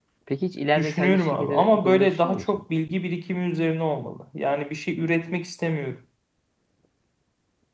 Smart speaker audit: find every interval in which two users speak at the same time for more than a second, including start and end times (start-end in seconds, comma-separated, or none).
0.8-2.6